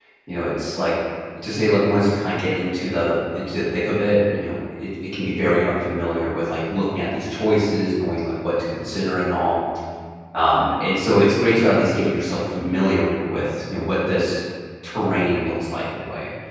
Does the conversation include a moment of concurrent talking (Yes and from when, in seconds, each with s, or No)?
No